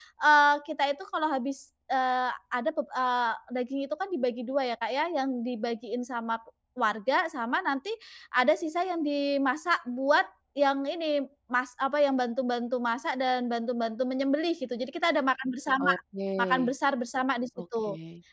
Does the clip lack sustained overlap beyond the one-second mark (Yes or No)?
Yes